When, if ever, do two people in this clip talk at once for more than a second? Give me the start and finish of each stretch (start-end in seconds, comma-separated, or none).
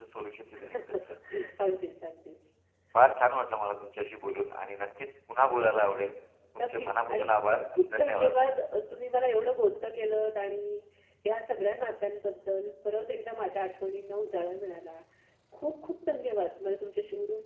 6.6-8.3